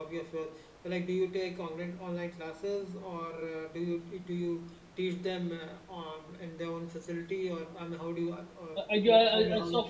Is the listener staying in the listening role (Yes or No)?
No